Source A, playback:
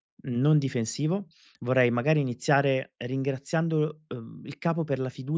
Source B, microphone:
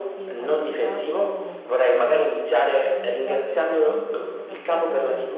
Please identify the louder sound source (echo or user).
echo